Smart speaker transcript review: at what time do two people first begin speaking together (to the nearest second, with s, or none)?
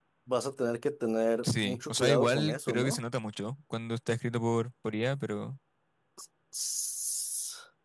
1 s